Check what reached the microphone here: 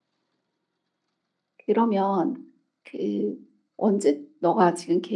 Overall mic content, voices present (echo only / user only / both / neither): user only